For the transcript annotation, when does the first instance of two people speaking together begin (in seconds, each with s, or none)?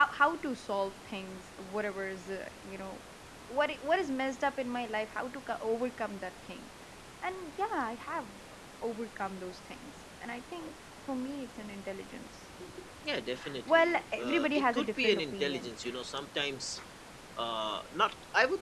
13.7 s